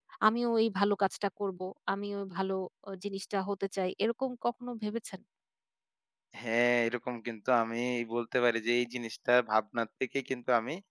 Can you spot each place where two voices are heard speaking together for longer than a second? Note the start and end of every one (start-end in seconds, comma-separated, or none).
none